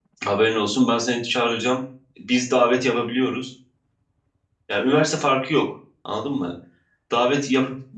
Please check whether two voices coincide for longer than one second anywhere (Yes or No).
No